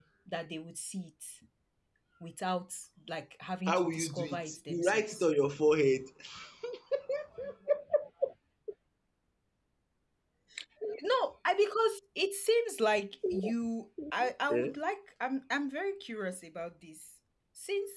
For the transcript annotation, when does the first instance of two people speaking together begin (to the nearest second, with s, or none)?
4 s